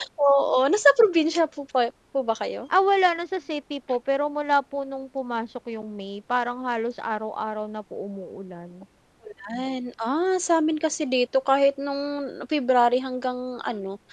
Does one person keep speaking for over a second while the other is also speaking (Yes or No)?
No